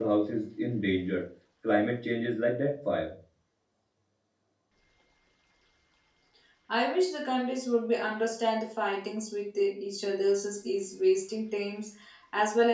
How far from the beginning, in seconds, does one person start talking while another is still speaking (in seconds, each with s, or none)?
none